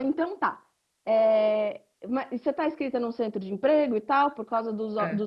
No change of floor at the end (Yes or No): Yes